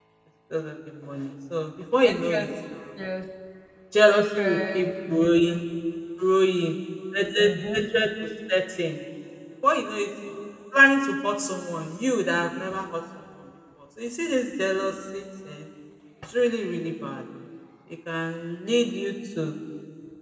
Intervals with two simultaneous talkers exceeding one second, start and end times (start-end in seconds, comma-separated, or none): 4.1-5.6